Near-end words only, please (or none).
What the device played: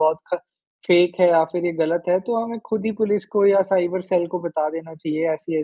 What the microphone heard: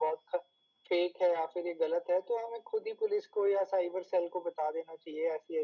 none